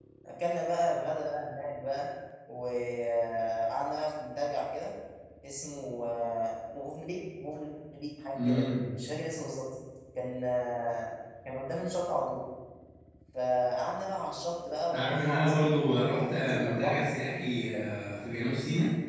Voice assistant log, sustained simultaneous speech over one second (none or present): present